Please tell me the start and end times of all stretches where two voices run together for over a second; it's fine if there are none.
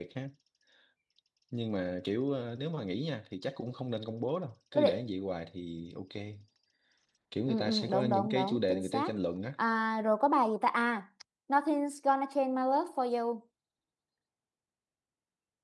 7.5-9.1

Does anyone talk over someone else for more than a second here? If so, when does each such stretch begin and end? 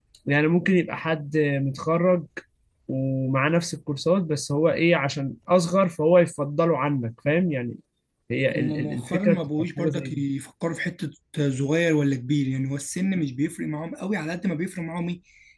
8.5-10.2

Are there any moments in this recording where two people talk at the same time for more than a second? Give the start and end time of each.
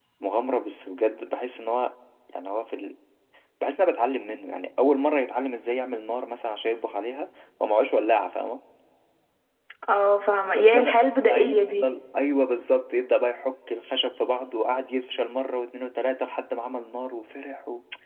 10.6-11.9

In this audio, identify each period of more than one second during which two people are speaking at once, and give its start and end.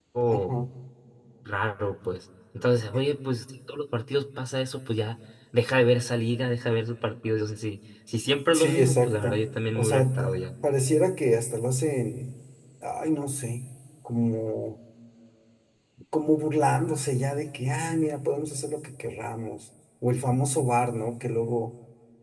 8.5-10.5

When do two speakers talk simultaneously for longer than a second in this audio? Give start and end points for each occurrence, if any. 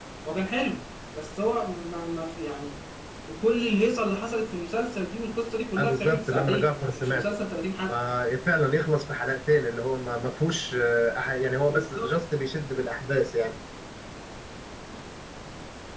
5.8-7.2

